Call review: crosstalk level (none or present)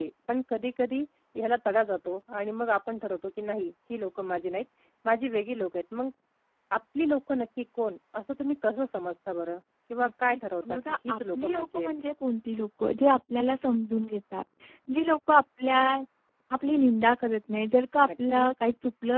present